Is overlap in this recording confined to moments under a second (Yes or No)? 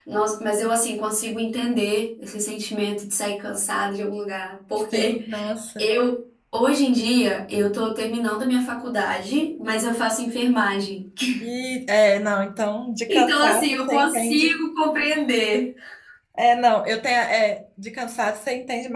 No